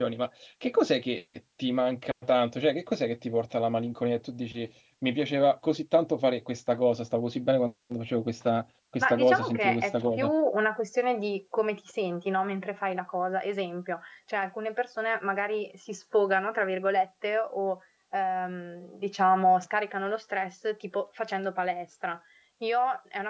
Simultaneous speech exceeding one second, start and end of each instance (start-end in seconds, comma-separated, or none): 9.0-10.3